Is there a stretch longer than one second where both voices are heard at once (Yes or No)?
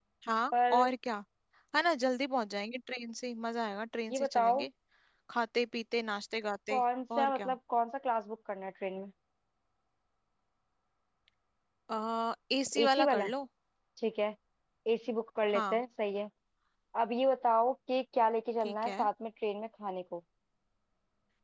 No